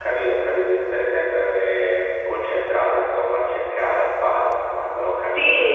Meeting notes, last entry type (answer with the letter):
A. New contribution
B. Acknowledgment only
A